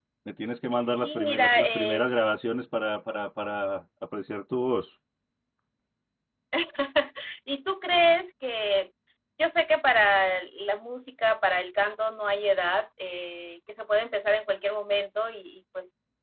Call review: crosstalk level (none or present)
present